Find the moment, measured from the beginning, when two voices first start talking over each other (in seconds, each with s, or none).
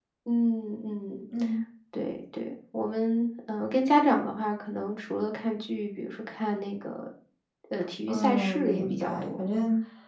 8.1 s